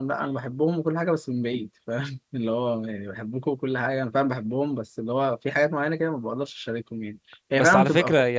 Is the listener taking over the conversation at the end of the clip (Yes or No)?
Yes